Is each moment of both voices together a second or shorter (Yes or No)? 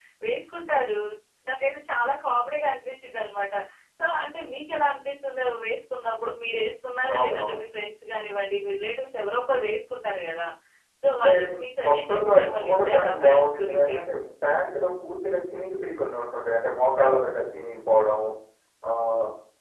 No